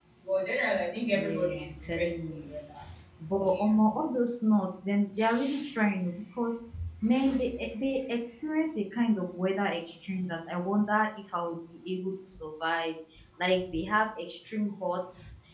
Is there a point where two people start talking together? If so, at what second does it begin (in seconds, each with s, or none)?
1.1 s